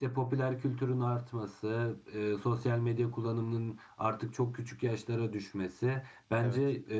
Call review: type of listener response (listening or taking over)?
listening